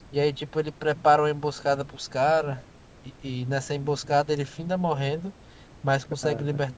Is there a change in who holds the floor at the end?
No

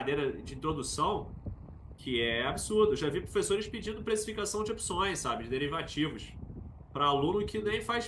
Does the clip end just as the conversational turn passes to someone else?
No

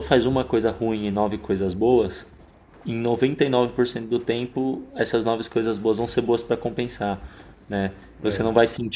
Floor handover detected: No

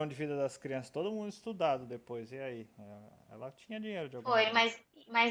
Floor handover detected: Yes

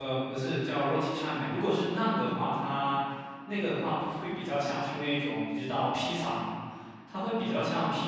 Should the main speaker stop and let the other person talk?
No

